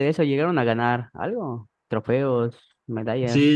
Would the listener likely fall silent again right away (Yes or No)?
No